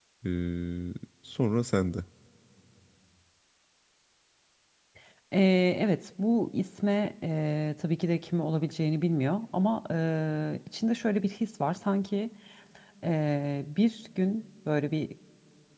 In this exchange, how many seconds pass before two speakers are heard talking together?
none

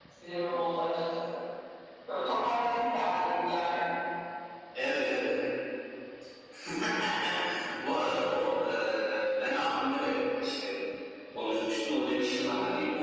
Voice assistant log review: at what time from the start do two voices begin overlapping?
none

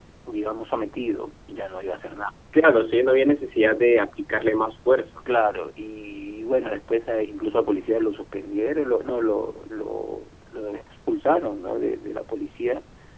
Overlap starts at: none

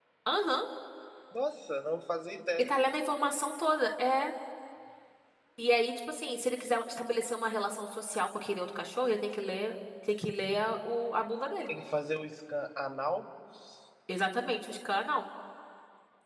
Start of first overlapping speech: none

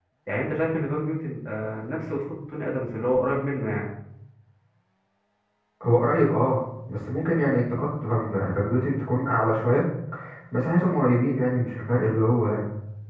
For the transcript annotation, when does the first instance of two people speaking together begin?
none

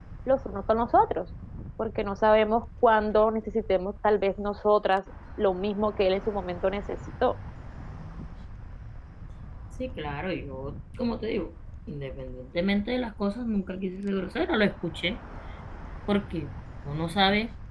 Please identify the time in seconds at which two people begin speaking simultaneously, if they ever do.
none

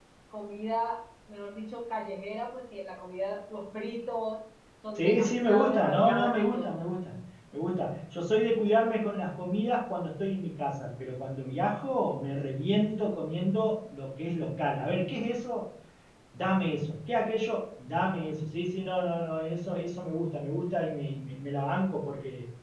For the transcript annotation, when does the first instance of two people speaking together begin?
5 s

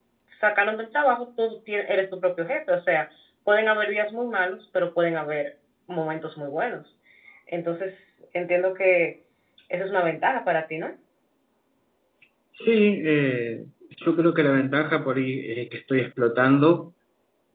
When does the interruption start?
none

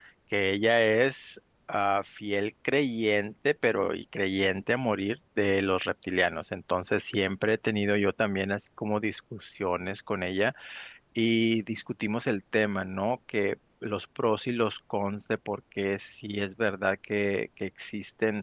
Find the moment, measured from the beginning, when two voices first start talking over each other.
none

